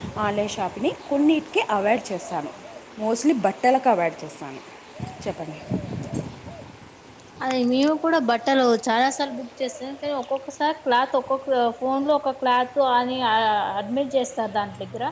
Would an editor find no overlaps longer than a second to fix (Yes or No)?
Yes